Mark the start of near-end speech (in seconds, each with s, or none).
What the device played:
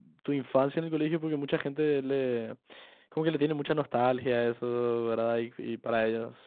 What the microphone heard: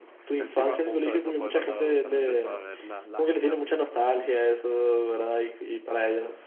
0.3 s